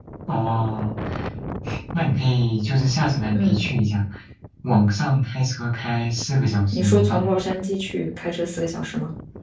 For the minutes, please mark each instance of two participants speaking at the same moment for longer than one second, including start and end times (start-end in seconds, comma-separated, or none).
none